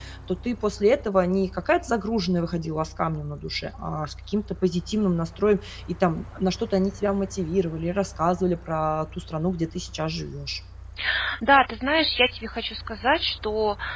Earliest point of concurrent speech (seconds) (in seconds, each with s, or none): none